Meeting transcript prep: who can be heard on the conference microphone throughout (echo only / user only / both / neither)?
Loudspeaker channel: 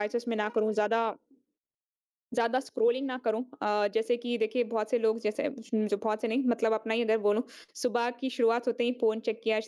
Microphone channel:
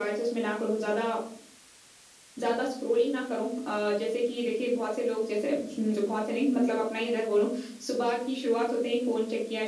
echo only